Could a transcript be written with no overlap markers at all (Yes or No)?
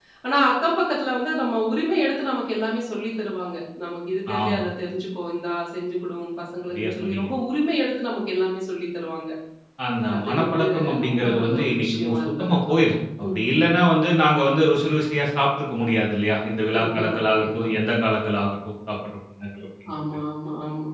No